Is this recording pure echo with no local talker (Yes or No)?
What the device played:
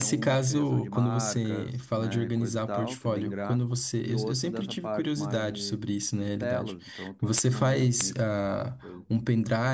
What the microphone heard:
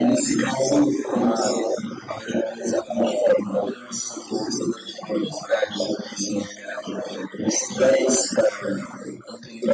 Yes